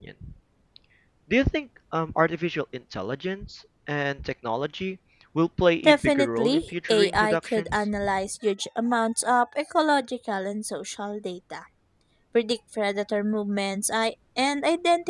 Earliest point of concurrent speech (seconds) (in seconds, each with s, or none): 5.8 s